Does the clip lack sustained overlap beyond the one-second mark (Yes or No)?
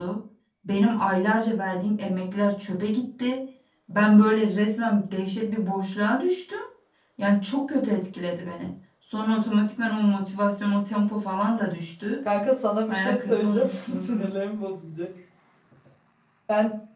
No